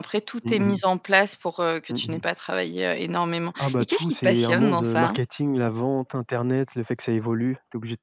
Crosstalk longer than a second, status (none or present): present